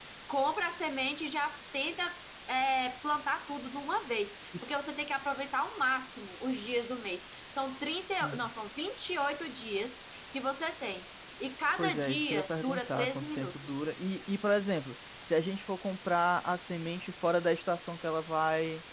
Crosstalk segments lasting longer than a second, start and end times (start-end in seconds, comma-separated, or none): 11.8-13.8